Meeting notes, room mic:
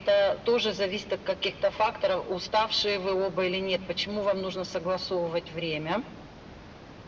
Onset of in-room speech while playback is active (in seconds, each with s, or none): none